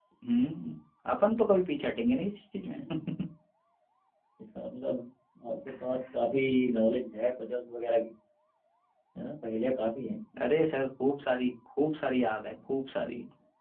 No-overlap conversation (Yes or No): Yes